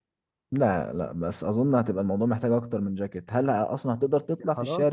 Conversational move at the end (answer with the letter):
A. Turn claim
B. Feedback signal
A